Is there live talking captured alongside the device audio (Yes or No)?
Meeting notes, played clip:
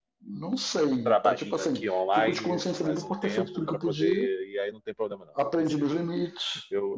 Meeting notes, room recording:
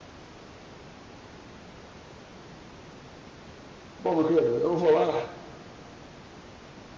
Yes